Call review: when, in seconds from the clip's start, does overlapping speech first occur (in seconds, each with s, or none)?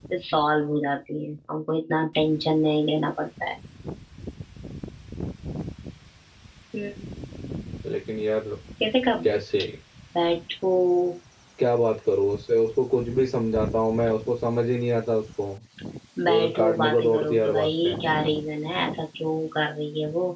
16.3 s